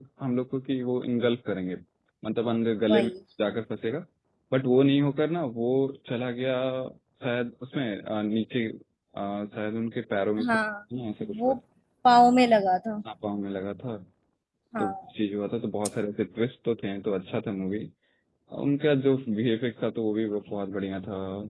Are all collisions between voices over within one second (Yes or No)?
Yes